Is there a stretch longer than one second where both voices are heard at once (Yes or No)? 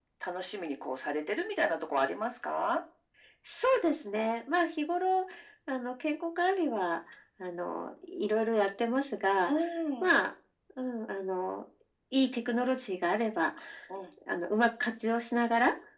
No